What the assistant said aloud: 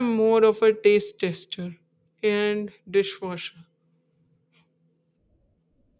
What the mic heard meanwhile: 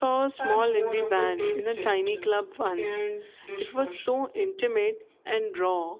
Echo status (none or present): present